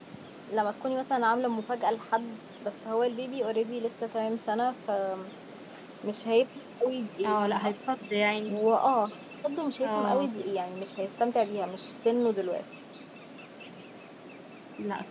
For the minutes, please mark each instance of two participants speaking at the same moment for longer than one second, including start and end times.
none

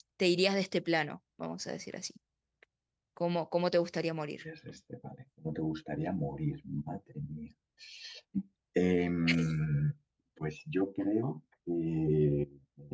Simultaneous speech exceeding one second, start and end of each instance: none

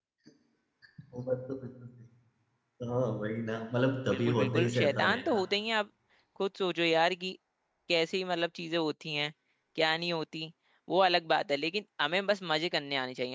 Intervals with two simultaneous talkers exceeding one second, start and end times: 4.1-5.4

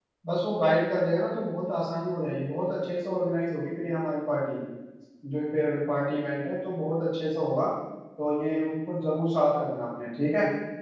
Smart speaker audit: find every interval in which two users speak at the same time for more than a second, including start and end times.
none

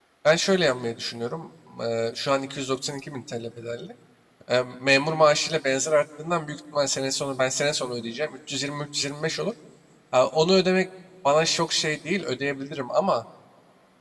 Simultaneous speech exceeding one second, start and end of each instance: none

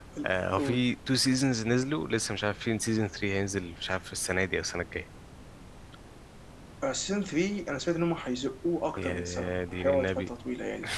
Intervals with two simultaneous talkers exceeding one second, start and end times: 9.0-10.3

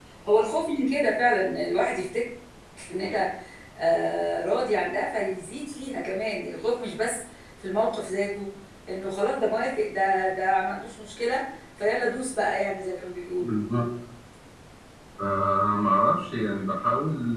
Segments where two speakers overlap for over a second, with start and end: none

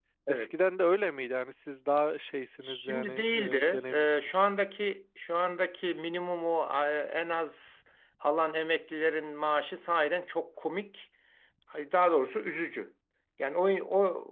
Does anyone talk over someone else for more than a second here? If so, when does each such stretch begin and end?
2.6-4.1

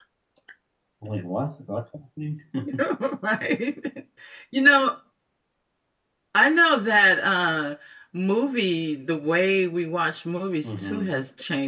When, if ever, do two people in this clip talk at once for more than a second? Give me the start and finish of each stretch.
none

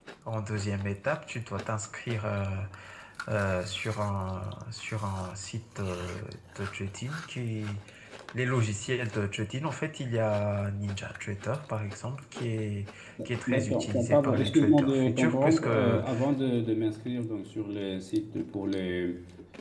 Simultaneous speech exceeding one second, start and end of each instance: 13.5-16.0

